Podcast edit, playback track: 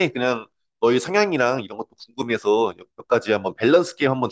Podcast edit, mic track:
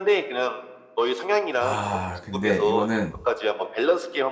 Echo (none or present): present